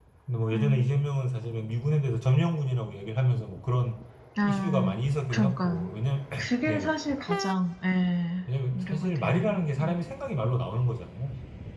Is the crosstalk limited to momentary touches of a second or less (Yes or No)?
No